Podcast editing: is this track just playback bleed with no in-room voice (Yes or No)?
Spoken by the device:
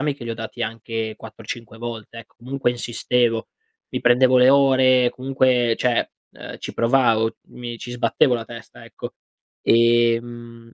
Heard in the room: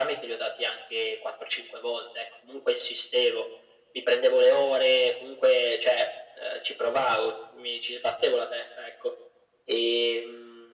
Yes